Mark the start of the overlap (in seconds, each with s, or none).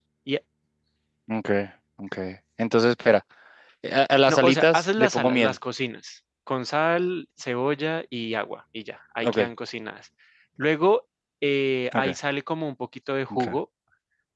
4.3 s